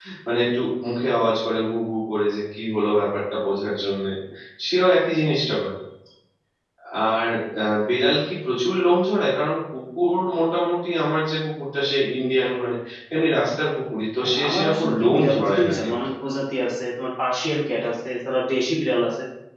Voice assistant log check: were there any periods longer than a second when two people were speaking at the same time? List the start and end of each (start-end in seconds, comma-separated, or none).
14.2-16.1